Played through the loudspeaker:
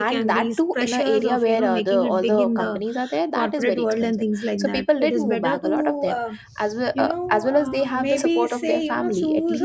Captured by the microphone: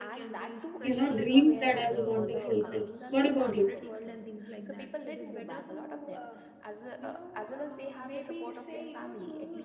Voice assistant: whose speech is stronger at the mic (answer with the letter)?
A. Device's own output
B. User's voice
B